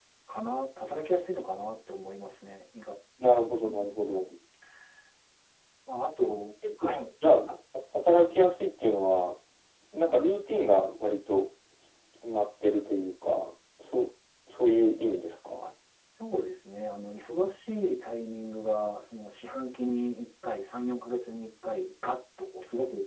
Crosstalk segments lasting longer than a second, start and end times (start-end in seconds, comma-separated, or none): none